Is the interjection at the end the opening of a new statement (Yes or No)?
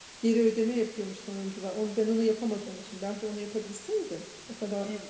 No